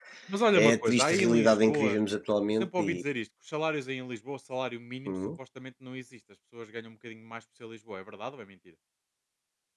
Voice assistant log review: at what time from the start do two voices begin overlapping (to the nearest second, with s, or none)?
1 s